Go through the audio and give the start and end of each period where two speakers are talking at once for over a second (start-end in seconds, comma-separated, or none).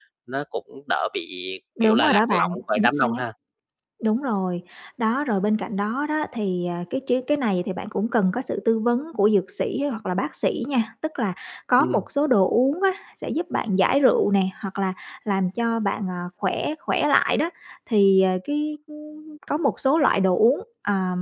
1.8-3.0